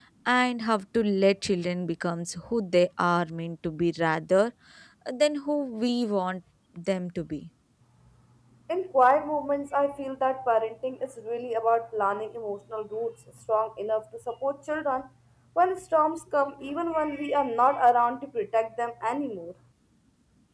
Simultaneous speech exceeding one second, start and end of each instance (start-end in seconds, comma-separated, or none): none